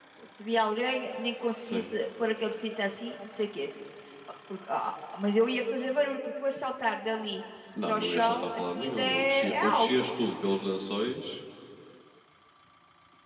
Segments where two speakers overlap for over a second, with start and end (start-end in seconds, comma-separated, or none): 7.9-10.1